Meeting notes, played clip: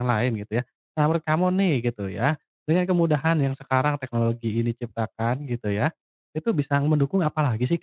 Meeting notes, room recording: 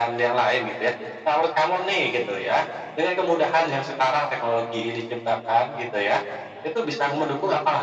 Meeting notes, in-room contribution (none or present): none